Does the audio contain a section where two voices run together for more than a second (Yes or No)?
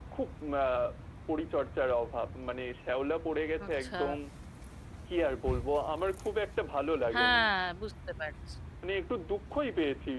No